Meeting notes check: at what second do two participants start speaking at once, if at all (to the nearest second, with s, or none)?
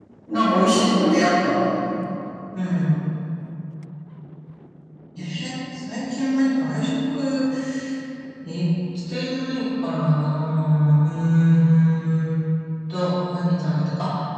none